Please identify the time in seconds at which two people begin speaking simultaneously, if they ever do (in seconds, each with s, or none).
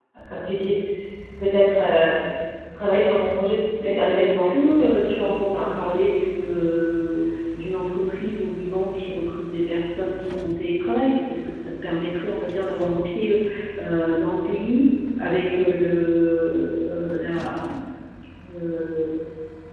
3.8 s